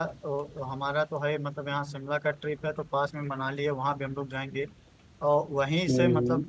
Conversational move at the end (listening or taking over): listening